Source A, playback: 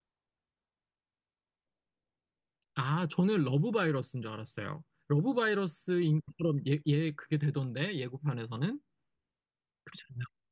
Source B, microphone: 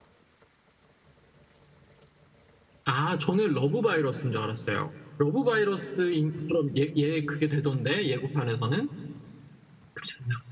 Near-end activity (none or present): none